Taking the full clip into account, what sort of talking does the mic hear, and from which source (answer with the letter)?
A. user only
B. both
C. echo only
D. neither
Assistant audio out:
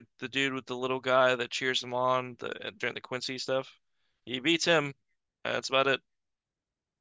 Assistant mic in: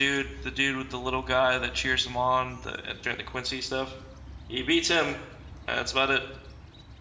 C